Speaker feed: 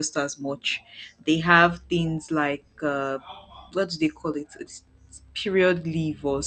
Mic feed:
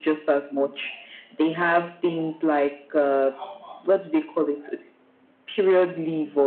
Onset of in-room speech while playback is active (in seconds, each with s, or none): none